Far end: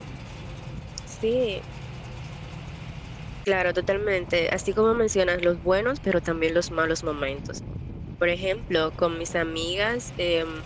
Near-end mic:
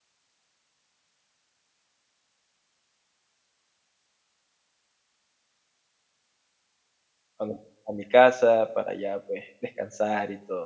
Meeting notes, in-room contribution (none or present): present